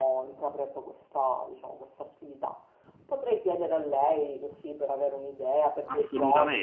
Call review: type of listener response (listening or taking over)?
taking over